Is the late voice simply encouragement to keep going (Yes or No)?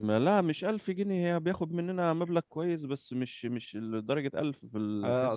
No